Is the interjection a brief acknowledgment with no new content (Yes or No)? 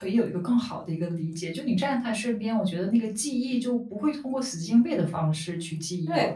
No